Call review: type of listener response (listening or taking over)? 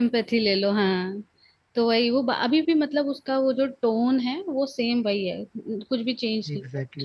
taking over